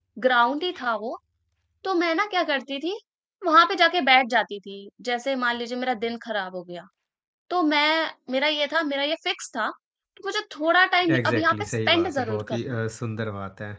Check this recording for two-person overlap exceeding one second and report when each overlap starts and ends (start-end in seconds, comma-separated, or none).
11.1-12.8